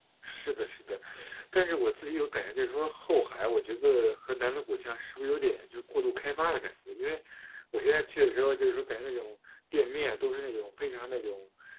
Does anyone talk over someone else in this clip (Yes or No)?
No